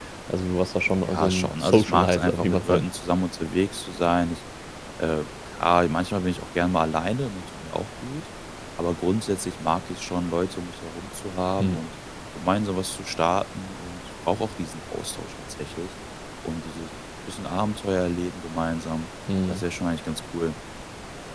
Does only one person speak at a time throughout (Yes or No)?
No